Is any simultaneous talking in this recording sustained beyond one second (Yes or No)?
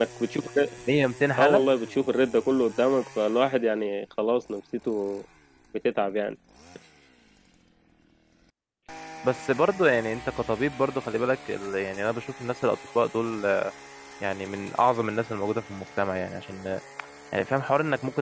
No